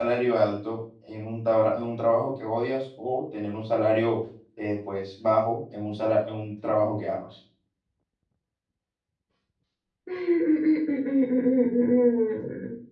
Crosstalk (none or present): none